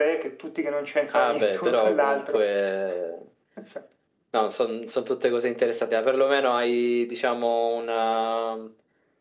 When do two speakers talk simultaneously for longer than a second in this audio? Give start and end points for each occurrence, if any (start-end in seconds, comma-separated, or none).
1.1-2.4